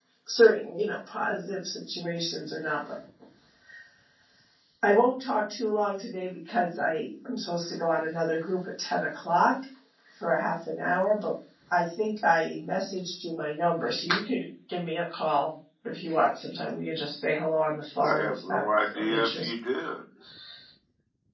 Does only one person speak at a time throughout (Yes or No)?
No